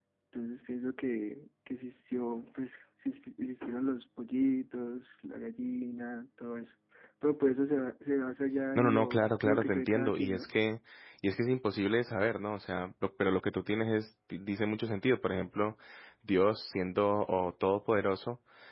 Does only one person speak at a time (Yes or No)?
No